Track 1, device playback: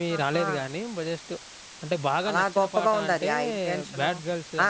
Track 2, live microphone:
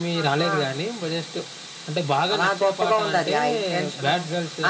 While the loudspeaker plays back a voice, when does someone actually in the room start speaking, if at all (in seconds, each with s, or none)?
none